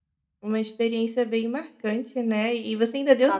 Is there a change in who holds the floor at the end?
No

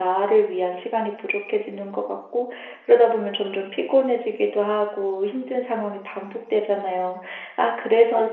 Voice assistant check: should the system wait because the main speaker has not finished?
Yes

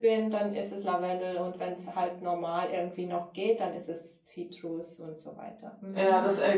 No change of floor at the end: No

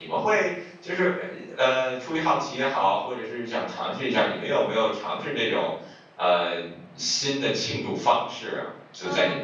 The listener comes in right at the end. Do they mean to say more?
Yes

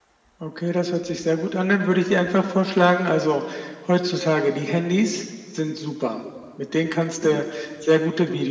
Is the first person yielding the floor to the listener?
No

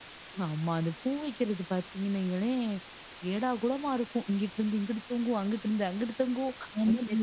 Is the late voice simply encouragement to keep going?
Yes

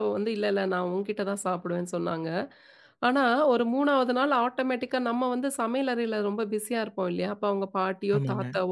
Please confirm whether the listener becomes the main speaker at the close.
No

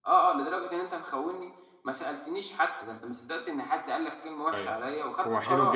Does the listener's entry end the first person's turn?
Yes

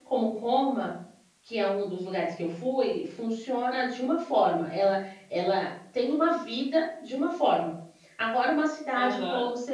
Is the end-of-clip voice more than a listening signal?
No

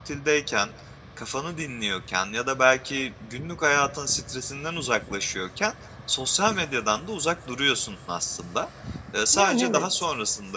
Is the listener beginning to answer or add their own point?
No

